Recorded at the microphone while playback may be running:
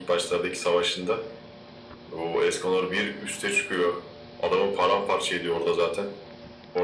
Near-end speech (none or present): none